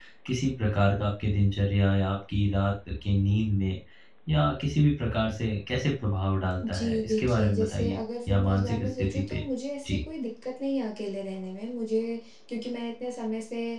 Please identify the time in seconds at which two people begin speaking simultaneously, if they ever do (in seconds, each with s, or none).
6.6 s